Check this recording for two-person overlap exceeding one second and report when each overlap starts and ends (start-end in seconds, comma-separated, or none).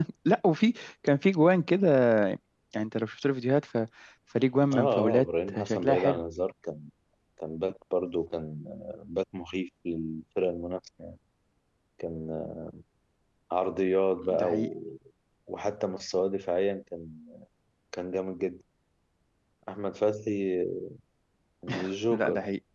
4.7-6.2